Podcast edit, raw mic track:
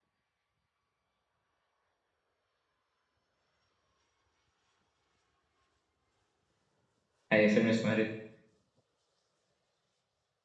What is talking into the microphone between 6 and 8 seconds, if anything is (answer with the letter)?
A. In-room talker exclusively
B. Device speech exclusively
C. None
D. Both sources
A